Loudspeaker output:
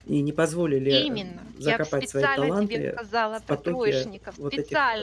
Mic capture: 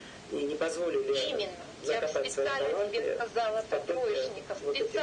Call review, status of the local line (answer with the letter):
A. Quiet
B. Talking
A